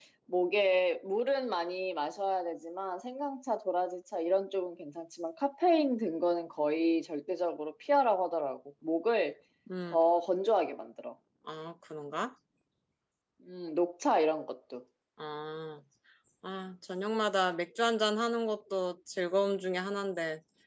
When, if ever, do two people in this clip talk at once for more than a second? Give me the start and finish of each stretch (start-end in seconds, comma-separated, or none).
none